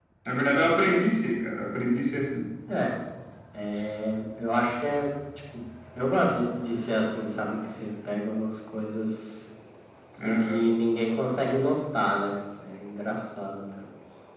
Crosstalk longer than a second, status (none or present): none